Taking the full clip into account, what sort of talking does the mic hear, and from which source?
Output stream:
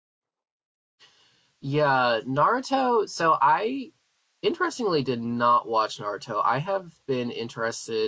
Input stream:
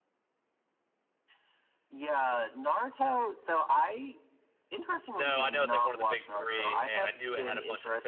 both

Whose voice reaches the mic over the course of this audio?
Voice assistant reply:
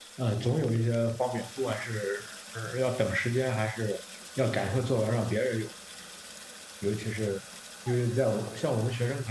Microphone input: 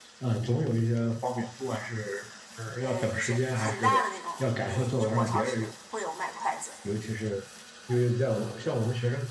both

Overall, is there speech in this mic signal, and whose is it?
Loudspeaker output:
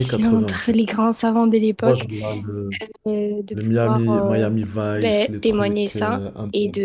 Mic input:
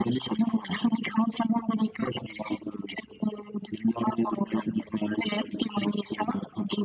echo only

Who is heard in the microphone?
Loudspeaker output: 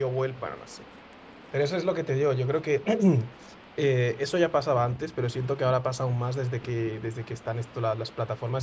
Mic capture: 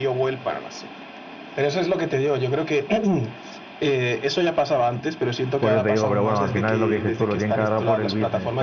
both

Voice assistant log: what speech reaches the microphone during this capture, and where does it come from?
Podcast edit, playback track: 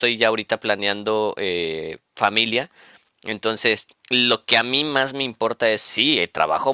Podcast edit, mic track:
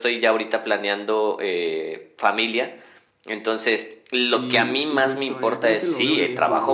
both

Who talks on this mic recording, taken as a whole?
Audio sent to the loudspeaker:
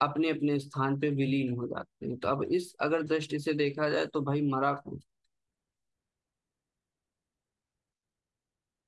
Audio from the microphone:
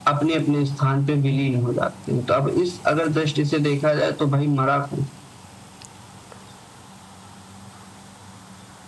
echo only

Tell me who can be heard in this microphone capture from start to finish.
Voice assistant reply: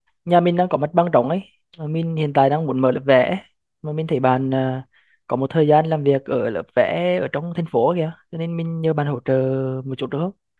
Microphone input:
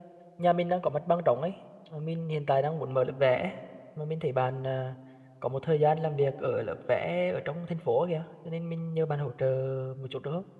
echo only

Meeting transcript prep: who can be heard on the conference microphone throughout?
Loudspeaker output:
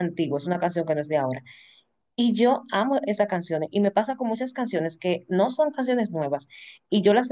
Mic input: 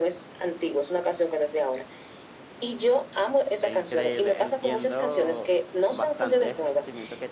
both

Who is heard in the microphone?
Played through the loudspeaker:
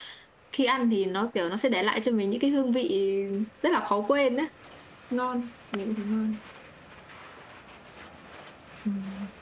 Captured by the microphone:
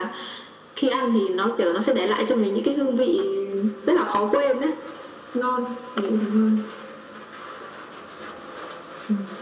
echo only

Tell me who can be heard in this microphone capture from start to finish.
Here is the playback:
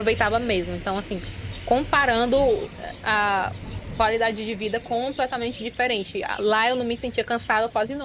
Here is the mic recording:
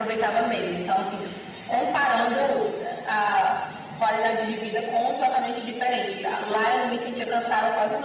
both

